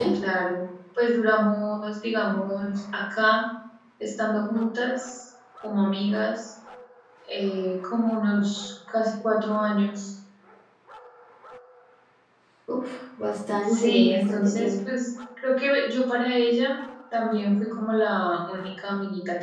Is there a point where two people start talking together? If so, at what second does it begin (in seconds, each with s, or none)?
13.7 s